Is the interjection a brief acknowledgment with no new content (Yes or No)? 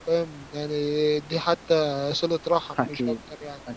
No